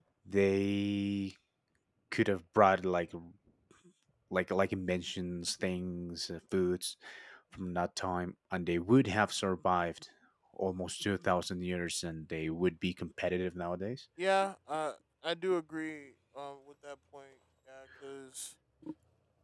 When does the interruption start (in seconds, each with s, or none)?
none